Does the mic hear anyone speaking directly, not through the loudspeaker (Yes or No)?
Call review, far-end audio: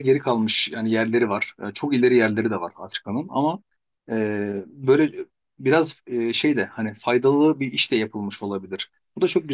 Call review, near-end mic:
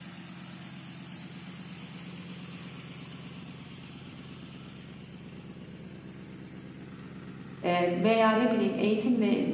Yes